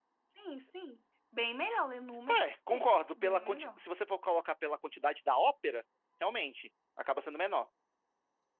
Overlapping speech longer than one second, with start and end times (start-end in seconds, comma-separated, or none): 2.4-3.8